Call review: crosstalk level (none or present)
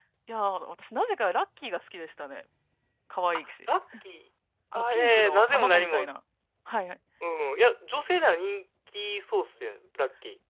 present